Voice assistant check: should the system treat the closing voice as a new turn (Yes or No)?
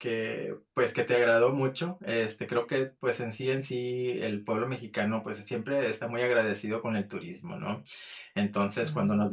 No